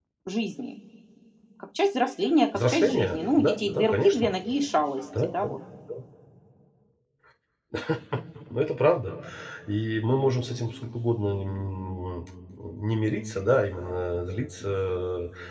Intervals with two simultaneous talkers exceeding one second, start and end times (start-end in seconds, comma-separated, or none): 2.5-4.3